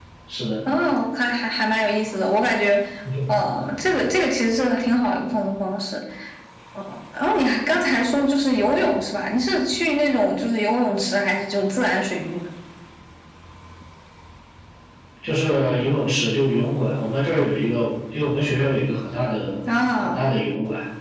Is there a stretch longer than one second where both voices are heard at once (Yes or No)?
No